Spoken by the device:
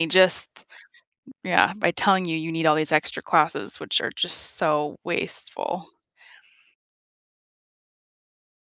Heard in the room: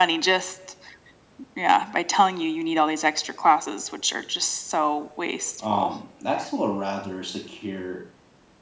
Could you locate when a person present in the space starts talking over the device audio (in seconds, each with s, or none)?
5.6 s